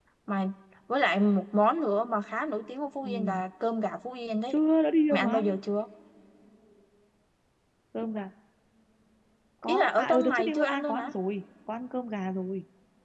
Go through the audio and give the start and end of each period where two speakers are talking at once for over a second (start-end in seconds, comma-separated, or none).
9.7-11.1